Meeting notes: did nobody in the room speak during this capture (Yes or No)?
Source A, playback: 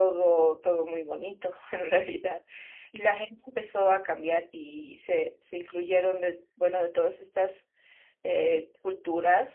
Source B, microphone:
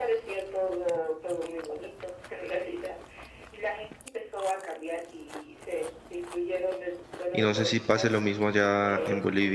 No